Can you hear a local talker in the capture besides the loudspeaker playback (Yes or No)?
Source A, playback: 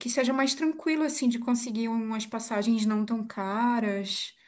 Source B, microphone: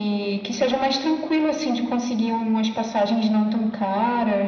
No